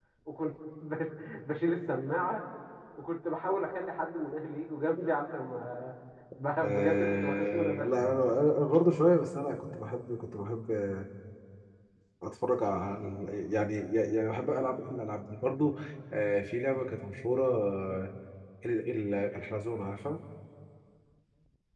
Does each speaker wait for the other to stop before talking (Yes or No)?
No